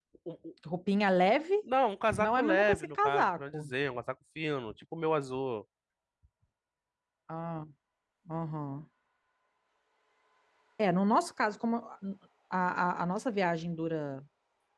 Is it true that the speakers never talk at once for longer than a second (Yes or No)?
No